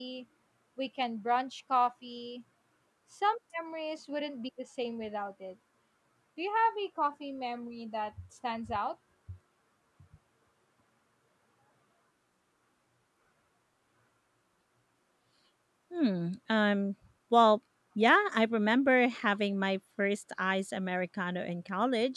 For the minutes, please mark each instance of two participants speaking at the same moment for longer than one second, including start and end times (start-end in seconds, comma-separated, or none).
none